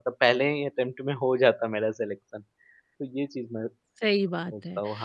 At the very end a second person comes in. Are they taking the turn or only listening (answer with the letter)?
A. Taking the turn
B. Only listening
A